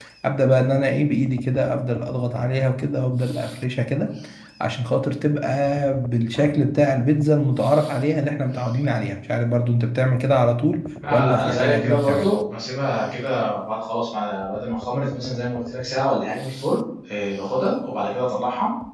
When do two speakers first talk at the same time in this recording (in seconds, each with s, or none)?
11.0 s